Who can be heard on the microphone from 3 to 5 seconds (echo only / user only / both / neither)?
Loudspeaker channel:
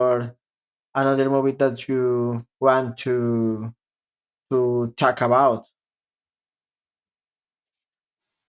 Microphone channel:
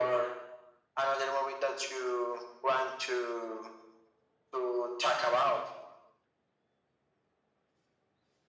echo only